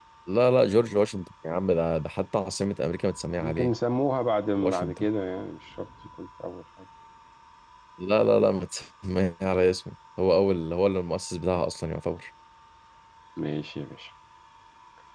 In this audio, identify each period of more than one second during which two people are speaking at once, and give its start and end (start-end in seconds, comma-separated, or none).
none